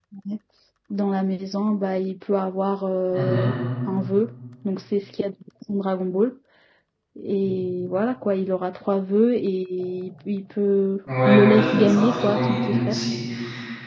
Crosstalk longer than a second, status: present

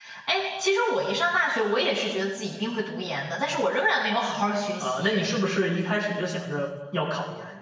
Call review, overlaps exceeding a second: none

